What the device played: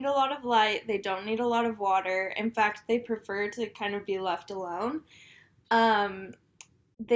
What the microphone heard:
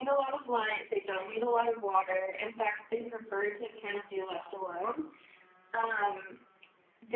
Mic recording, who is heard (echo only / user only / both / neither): echo only